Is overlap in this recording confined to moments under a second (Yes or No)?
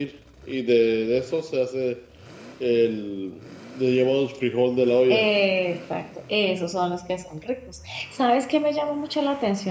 Yes